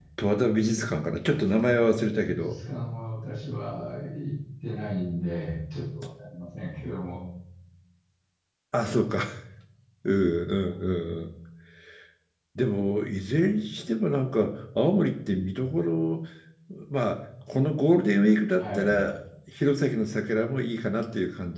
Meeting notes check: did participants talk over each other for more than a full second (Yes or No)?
No